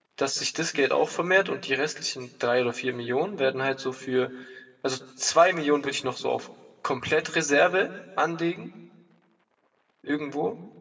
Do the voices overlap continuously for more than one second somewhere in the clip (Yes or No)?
No